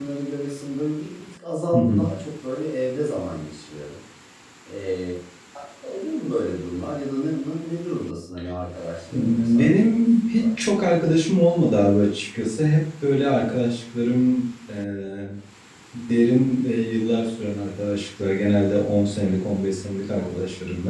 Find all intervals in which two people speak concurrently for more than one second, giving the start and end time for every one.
9.1-10.5

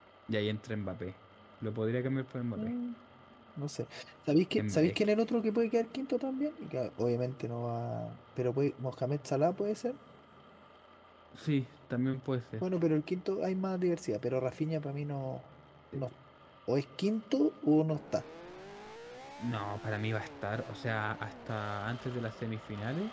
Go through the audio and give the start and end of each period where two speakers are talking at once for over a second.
none

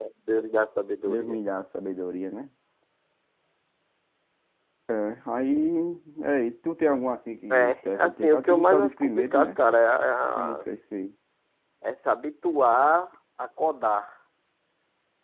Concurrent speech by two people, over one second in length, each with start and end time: 7.5-9.5

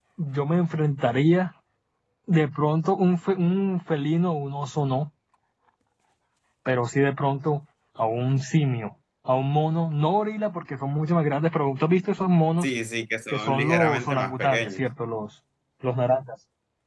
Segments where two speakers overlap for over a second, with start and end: 13.3-14.8

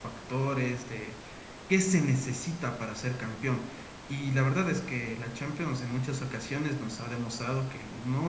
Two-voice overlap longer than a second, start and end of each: none

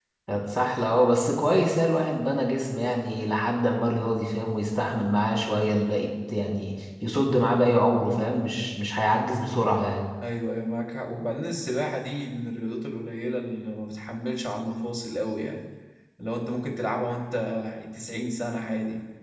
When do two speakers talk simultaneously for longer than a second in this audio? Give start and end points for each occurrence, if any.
none

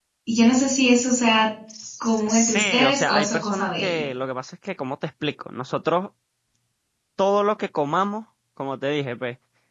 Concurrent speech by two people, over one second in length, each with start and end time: 2.0-4.0

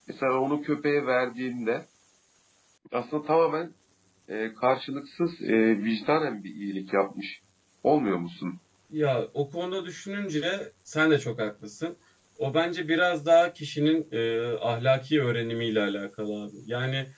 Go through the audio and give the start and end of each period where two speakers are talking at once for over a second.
none

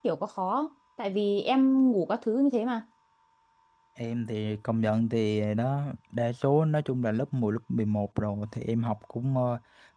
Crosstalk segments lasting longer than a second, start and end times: none

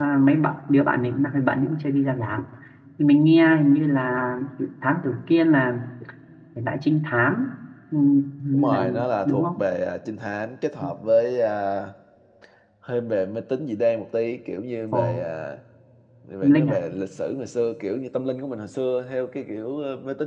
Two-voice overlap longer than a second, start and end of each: none

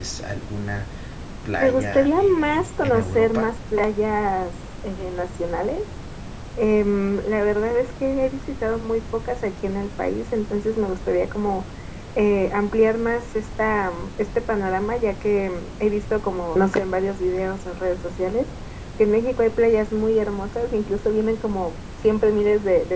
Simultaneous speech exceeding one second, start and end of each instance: 1.6-3.5

